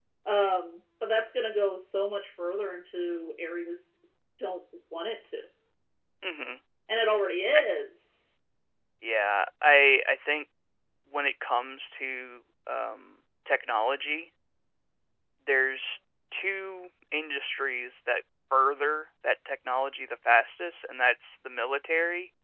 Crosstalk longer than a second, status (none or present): none